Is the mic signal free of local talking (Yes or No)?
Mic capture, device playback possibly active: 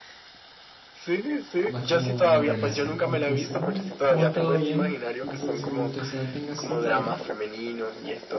No